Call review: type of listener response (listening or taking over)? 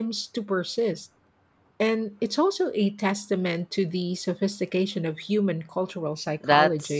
taking over